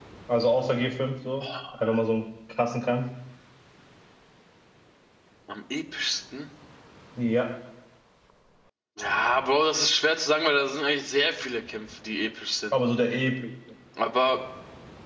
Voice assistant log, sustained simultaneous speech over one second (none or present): none